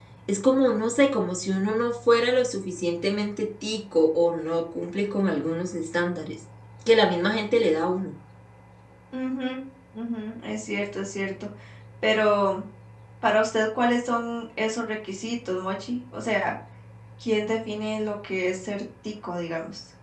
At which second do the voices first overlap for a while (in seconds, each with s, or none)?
none